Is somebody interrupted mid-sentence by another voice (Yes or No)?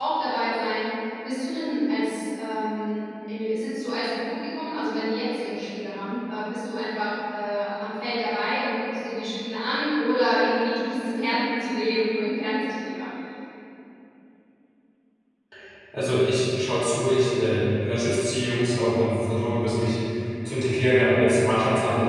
No